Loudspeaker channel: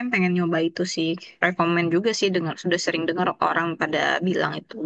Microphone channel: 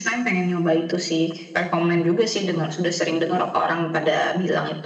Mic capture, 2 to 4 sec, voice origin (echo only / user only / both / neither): echo only